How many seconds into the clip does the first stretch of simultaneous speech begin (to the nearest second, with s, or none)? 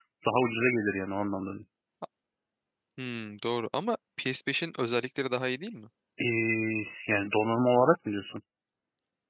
none